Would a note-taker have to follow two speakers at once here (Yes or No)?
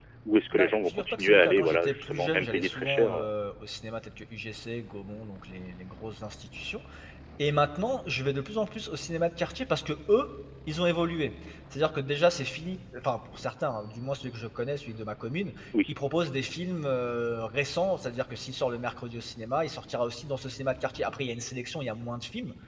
Yes